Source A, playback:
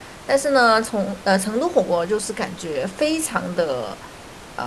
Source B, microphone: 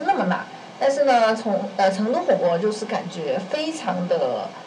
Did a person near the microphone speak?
No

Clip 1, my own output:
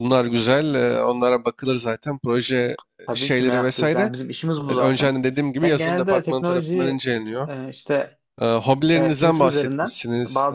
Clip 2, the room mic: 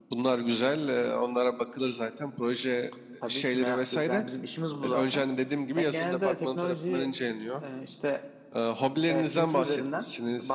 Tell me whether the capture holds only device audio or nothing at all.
Yes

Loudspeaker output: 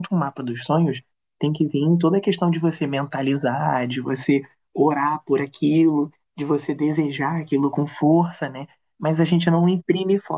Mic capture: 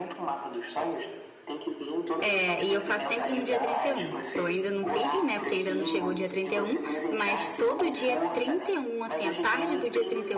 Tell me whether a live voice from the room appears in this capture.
Yes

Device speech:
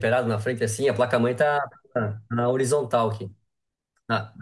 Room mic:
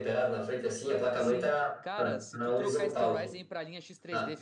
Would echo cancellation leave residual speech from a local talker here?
Yes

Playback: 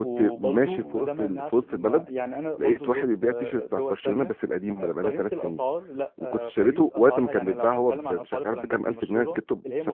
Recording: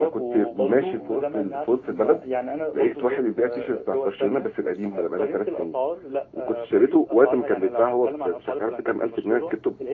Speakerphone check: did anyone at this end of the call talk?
No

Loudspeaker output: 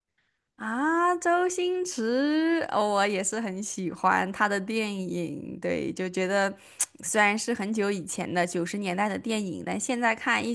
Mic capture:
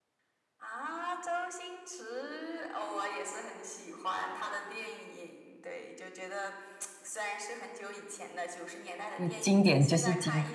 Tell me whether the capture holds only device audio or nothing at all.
No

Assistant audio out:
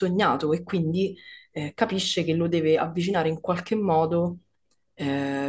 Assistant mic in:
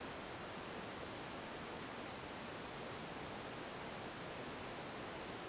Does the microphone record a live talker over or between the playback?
No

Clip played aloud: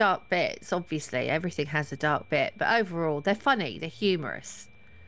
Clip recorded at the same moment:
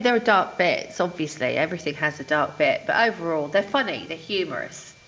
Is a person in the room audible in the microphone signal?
No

